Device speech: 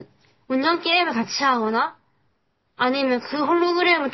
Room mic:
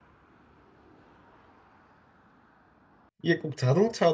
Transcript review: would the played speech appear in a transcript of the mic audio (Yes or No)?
No